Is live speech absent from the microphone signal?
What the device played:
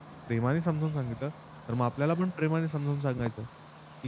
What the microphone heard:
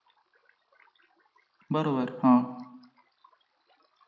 No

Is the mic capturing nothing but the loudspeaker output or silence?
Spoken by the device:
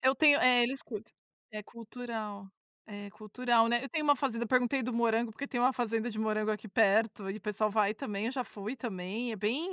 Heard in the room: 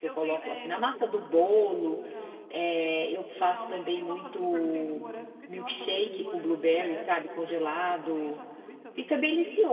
No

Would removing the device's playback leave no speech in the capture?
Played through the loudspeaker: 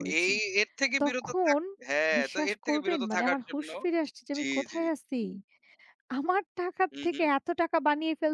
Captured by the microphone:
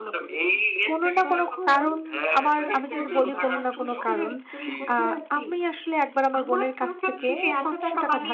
No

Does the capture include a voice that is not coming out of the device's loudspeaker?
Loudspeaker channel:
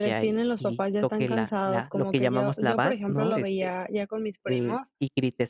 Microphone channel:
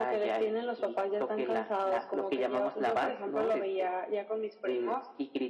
No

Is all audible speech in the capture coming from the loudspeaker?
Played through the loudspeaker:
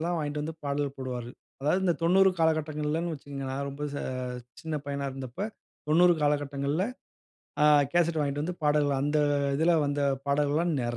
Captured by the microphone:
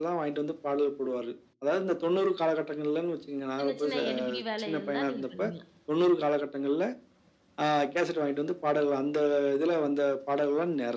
No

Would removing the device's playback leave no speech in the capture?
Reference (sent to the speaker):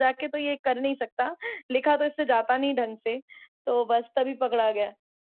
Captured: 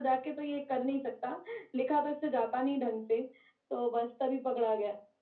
Yes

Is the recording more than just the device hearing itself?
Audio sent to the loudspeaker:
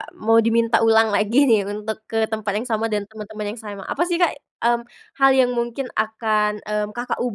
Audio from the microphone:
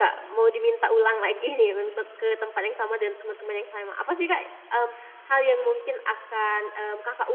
No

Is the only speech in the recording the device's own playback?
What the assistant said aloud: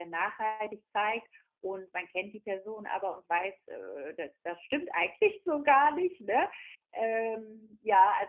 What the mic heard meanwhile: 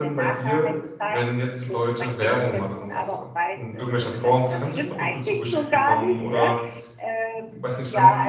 No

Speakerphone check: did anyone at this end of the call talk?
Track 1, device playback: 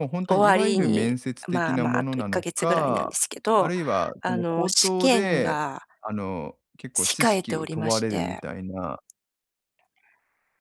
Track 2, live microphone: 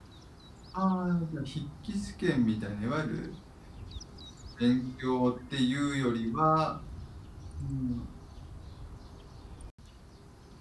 Yes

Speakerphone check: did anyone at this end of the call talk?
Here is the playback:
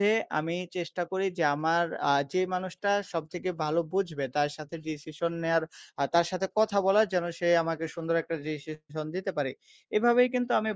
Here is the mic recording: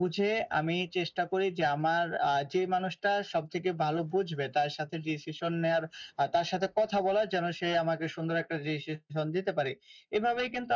No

